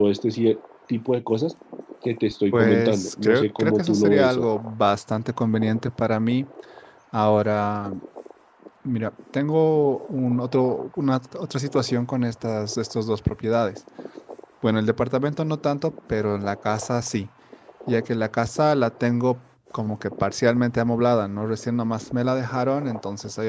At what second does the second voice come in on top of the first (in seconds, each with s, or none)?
2.5 s